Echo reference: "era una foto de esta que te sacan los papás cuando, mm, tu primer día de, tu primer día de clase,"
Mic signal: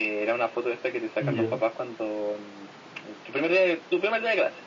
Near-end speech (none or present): present